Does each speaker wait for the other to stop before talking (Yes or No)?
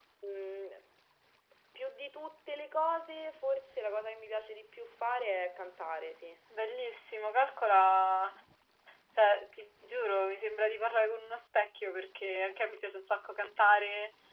Yes